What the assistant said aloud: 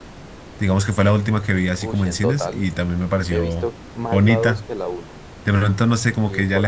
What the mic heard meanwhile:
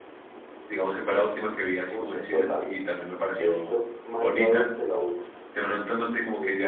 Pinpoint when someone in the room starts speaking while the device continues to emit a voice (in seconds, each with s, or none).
none